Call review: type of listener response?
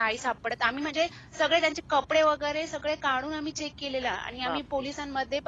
listening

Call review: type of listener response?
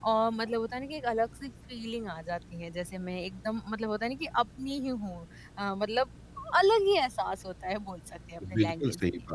taking over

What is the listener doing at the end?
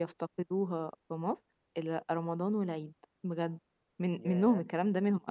listening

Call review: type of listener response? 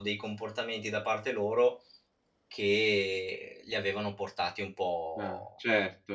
taking over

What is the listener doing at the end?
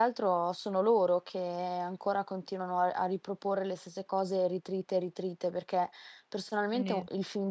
listening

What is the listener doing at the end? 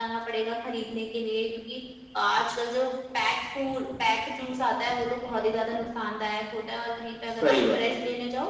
listening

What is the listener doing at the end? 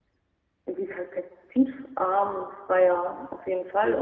taking over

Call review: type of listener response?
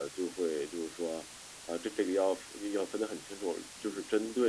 listening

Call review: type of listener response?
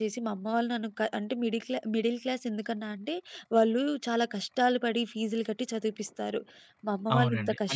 taking over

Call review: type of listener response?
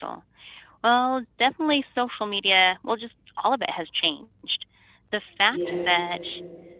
listening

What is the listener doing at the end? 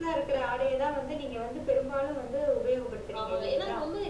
taking over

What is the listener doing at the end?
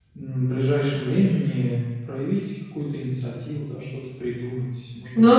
taking over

